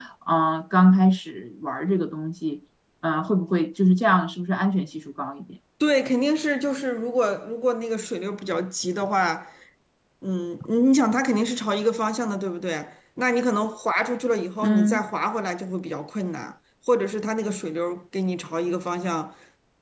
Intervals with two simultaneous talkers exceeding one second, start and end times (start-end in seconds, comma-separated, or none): none